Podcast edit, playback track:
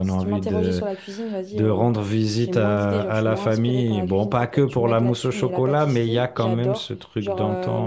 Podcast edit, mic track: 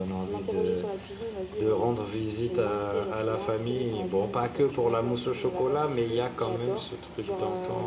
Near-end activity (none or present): none